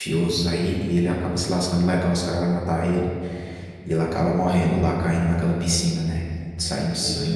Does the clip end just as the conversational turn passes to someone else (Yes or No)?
No